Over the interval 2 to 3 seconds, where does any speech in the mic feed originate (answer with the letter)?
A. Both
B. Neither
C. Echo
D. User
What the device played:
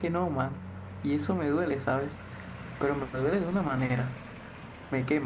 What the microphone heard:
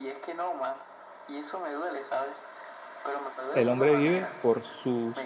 C